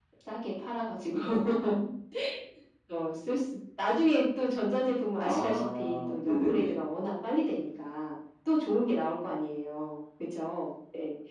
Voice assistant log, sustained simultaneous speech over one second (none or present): present